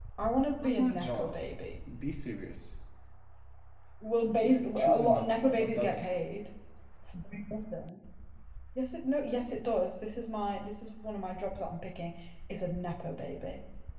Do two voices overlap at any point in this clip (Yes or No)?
Yes